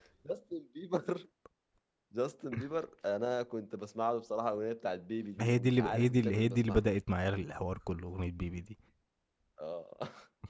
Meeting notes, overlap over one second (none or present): present